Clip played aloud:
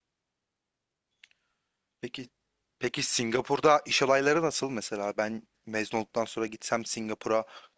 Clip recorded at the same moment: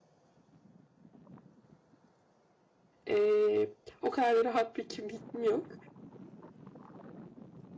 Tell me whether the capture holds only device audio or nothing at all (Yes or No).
No